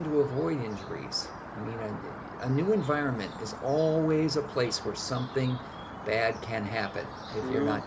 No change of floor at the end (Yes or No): No